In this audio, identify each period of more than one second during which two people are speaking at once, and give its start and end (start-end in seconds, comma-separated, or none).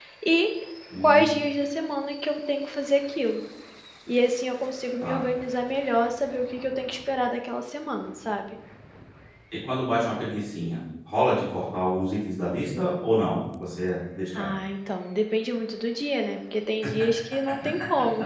none